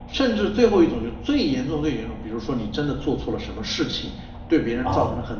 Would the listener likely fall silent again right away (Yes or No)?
Yes